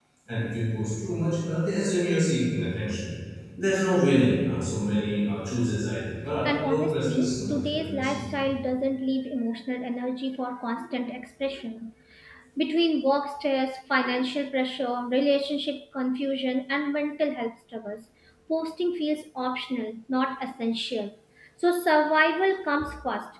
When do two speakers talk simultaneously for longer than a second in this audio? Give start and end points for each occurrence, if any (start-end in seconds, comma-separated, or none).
6.4-8.3